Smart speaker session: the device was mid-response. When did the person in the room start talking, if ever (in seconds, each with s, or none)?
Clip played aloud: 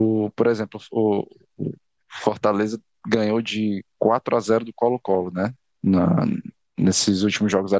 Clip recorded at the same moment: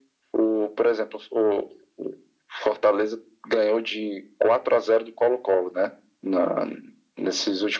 none